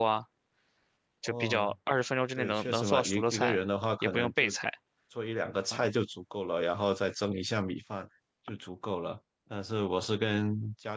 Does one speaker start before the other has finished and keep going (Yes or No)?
Yes